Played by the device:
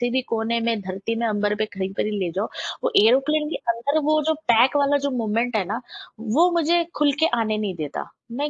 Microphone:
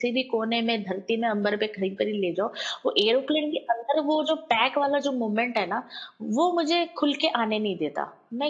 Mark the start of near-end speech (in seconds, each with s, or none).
none